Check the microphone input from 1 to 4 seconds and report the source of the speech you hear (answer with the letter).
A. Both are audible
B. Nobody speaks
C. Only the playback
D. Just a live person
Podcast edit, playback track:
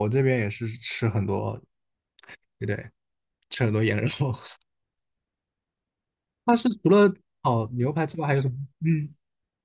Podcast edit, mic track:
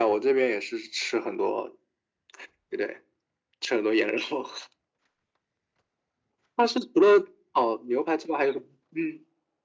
C